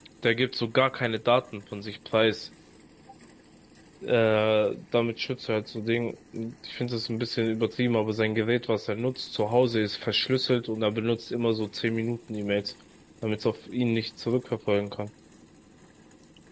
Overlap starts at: none

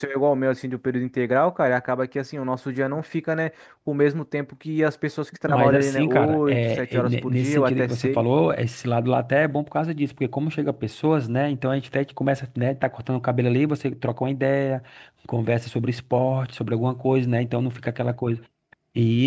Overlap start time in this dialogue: 5.5 s

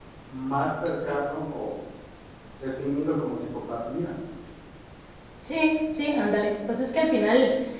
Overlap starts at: none

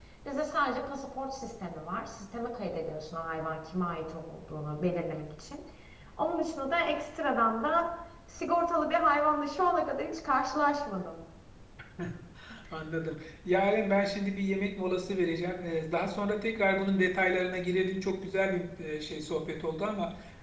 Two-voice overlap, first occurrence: none

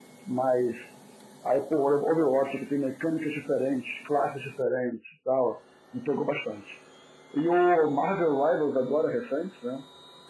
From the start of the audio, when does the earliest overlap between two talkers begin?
none

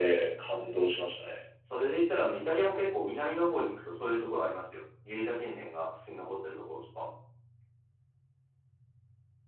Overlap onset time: none

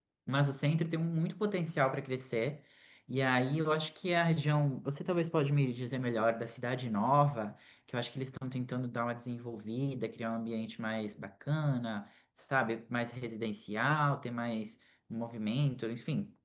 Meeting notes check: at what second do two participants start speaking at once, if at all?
none

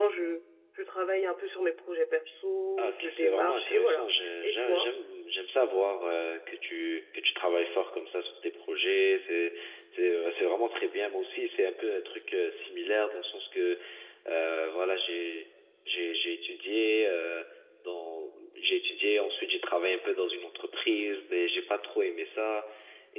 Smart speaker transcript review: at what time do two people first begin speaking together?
2.8 s

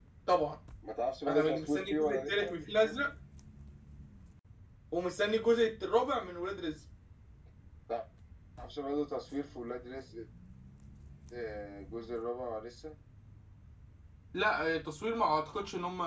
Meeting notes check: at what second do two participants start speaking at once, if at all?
1.3 s

